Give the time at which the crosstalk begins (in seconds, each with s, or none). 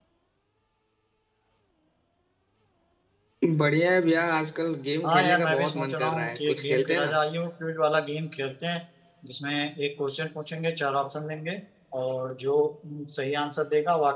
5.0 s